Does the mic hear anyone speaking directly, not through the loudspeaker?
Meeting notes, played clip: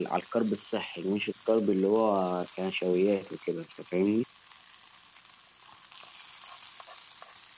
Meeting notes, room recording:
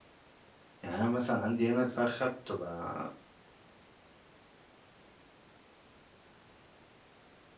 Yes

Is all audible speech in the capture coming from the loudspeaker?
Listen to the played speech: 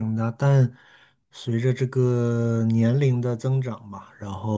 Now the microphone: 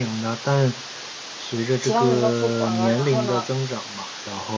No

